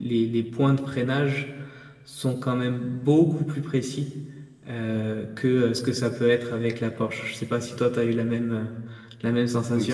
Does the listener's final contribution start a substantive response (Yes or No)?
Yes